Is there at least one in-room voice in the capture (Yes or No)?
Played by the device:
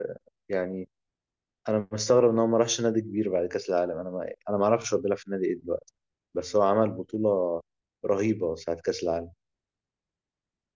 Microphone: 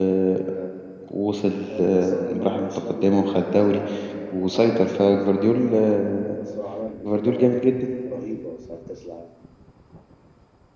Yes